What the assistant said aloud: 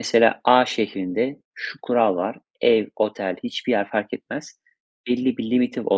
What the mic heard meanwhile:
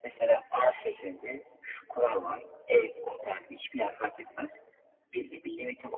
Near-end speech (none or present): none